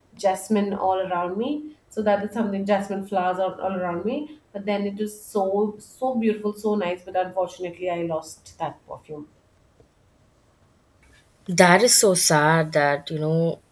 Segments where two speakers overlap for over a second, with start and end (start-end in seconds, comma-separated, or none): none